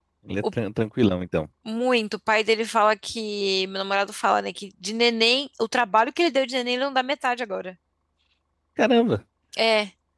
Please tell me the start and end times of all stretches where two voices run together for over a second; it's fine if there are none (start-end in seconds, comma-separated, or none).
none